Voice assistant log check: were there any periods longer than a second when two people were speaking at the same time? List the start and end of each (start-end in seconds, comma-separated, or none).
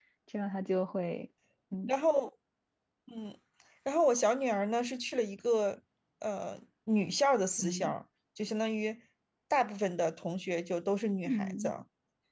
none